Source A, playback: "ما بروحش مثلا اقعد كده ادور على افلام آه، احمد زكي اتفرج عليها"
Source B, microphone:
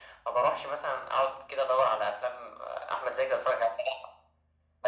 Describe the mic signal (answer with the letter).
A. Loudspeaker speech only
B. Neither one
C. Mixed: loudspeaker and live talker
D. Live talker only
A